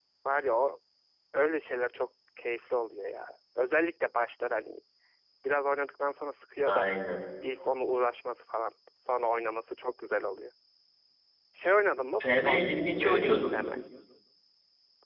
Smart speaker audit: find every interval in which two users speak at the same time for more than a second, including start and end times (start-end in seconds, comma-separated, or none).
12.2-13.5